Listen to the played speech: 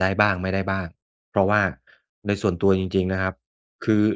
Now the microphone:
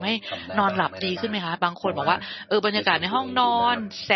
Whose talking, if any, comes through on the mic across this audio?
both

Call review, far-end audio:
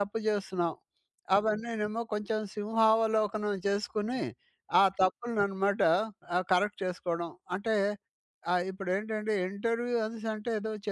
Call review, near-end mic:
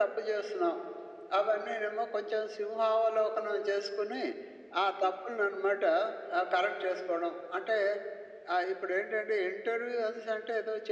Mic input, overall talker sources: echo only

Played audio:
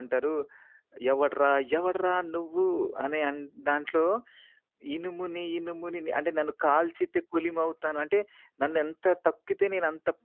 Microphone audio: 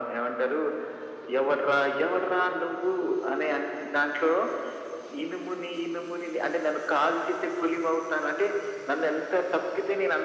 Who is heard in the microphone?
echo only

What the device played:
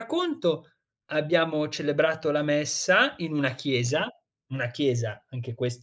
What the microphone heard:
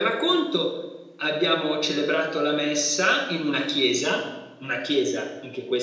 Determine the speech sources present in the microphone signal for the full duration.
echo only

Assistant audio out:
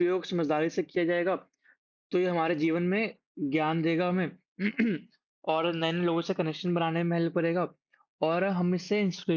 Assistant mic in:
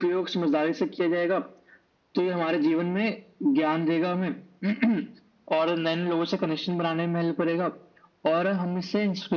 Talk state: echo only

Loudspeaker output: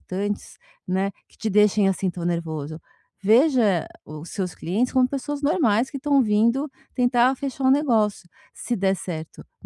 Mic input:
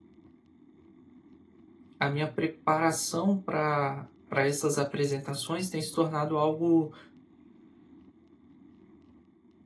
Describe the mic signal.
user only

